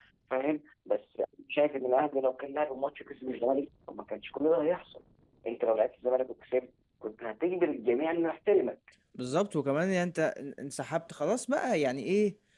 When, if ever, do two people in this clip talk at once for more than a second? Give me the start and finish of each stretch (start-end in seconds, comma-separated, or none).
none